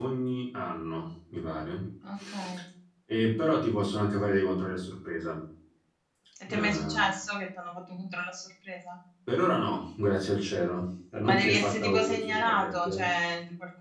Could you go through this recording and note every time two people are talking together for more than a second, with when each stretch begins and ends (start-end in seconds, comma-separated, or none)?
11.2-13.0